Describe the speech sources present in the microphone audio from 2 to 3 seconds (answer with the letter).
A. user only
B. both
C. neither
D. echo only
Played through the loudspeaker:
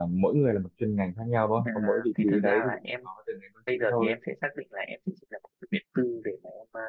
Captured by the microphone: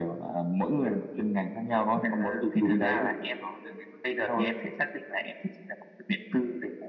D